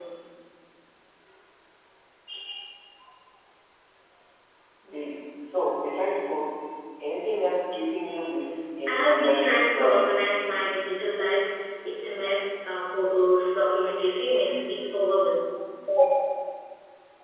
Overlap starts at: 8.9 s

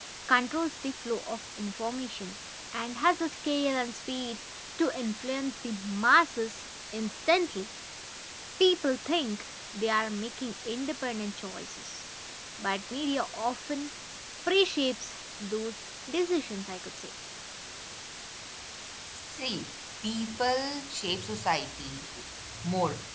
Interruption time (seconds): none

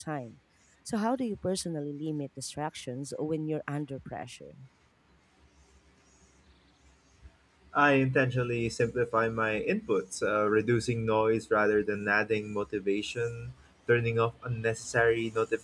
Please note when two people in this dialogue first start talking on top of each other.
none

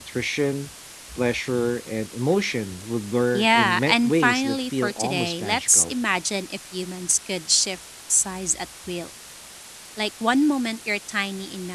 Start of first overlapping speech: 3.3 s

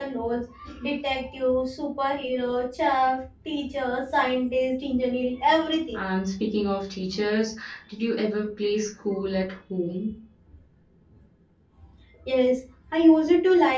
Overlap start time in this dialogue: none

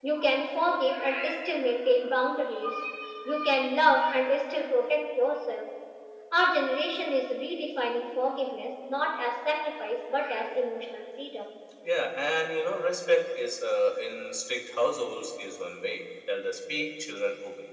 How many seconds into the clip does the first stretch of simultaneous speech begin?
none

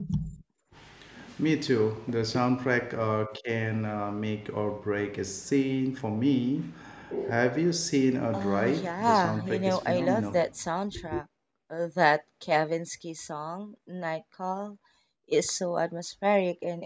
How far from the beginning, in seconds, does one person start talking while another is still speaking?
8.3 s

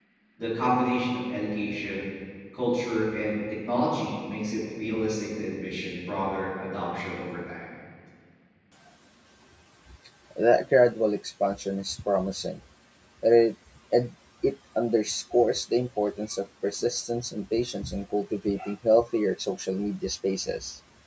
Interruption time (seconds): none

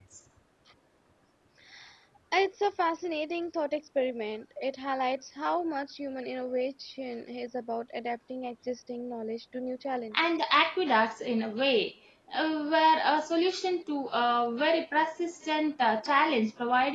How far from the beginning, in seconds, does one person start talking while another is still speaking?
none

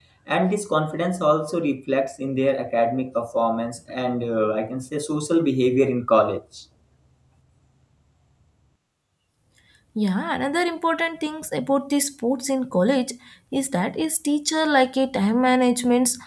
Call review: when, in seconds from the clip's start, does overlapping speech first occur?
none

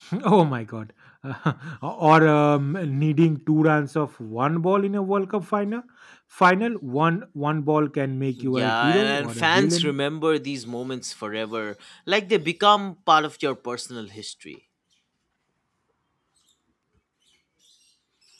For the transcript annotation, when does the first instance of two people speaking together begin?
8.4 s

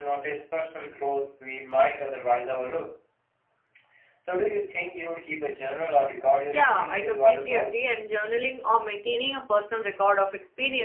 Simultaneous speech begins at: 6.4 s

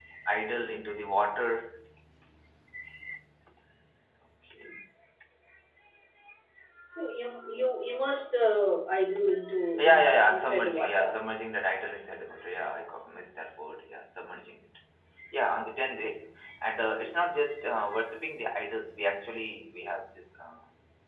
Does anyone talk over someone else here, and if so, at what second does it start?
9.8 s

